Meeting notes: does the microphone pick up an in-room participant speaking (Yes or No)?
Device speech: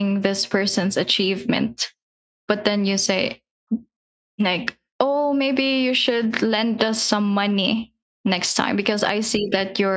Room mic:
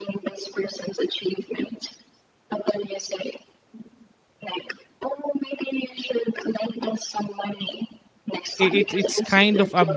Yes